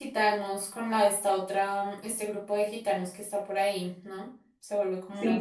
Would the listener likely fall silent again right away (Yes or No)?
No